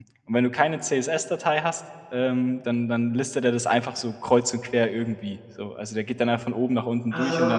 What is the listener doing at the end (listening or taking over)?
listening